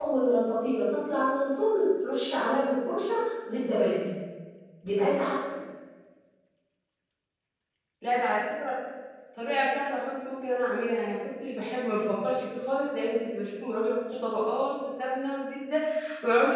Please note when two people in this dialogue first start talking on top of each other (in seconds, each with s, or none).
none